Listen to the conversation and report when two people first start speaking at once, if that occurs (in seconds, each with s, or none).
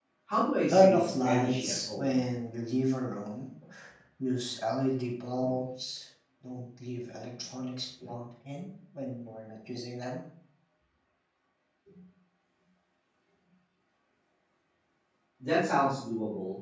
0.7 s